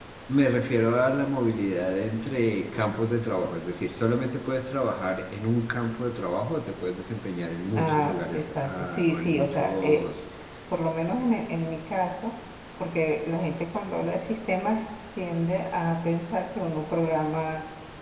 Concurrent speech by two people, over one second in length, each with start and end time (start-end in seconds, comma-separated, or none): 7.8-10.1